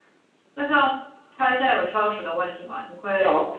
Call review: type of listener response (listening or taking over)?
listening